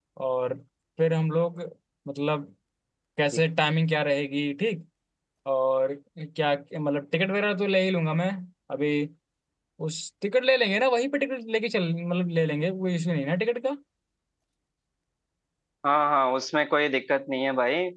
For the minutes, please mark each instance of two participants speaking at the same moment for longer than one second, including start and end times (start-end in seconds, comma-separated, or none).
none